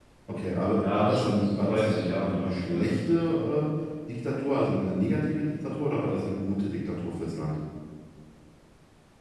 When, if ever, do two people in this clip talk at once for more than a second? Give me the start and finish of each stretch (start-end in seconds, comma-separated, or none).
0.8-3.1